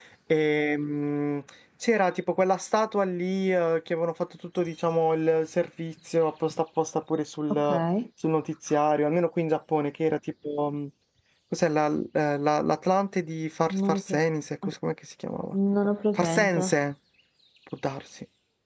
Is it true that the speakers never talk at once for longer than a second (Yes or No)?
Yes